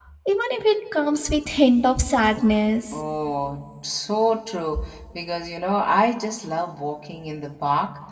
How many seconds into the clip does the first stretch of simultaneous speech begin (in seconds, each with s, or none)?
none